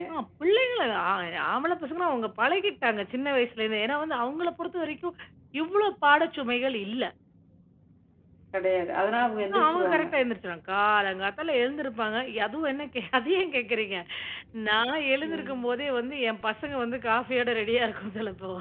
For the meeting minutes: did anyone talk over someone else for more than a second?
No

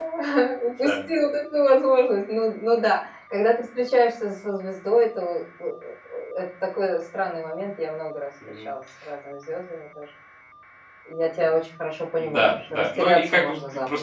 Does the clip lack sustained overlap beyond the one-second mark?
No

